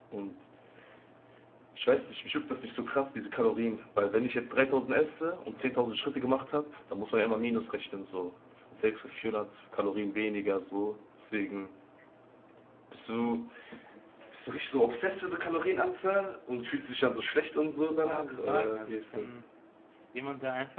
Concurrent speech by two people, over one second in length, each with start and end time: 18.0-19.3

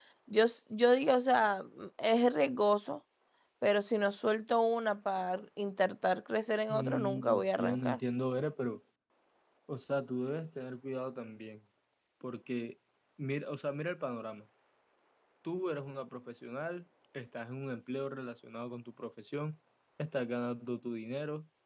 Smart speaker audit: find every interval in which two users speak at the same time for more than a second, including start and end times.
6.7-8.0

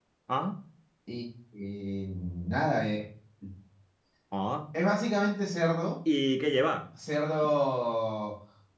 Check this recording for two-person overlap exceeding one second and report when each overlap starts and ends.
none

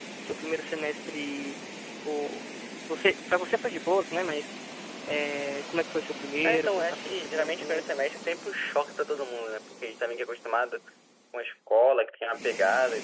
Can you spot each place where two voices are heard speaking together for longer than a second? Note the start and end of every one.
6.4-7.8

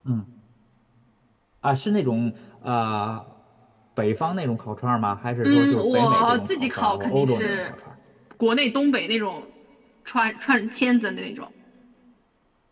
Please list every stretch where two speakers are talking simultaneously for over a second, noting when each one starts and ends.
5.4-7.7

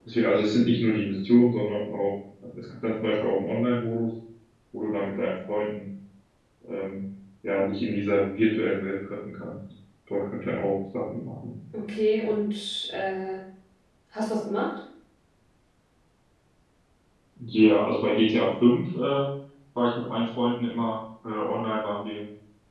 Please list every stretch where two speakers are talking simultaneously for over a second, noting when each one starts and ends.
none

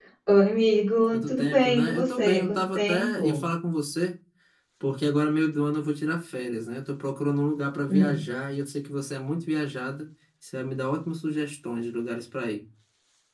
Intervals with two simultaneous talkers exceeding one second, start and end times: 1.1-3.4

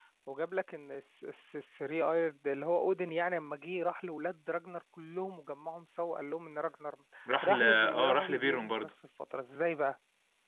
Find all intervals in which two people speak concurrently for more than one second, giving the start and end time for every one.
7.4-8.9

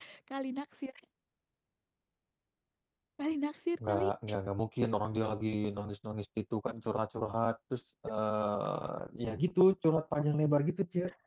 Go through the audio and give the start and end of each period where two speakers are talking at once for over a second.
none

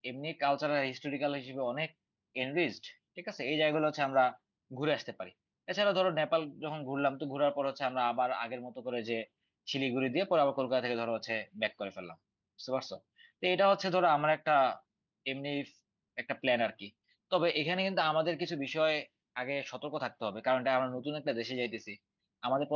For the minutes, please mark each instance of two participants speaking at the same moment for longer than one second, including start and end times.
none

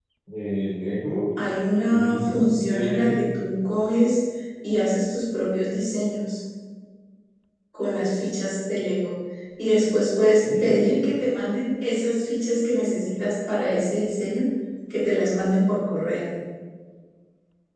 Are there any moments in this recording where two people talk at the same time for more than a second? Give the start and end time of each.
1.9-3.2

